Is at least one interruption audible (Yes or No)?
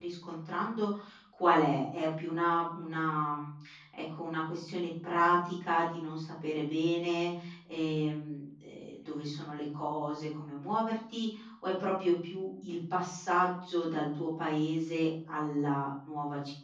No